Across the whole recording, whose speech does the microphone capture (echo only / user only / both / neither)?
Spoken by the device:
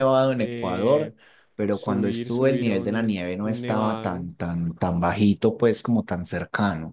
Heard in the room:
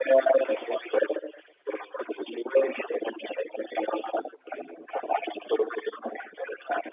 echo only